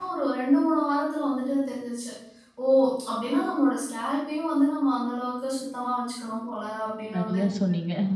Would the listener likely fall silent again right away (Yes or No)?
No